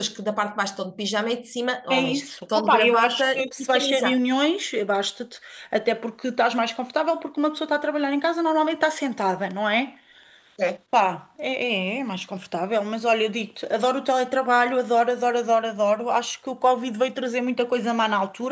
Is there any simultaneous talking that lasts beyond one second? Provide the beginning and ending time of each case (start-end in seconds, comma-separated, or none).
1.9-4.2